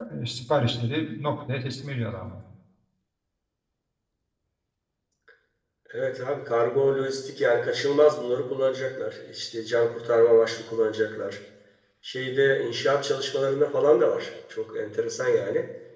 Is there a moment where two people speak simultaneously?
No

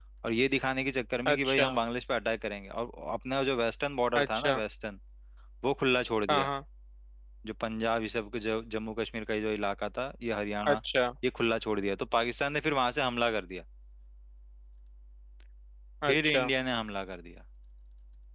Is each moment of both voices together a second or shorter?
Yes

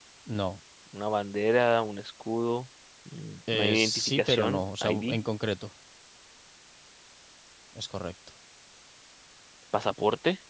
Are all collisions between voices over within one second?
No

